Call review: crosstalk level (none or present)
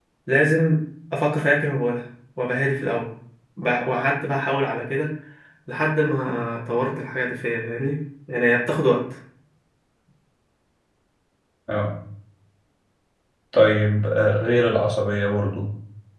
none